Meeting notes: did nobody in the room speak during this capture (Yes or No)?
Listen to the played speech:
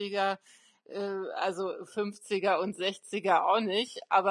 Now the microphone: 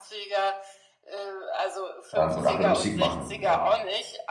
No